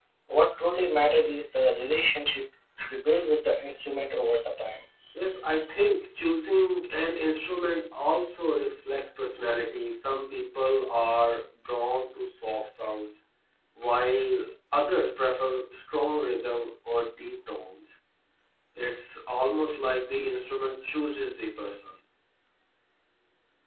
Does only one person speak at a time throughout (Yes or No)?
Yes